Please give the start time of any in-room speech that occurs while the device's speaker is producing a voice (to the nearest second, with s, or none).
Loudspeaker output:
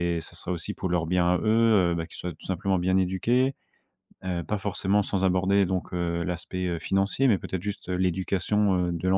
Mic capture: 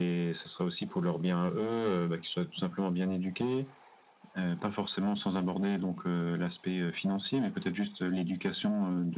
none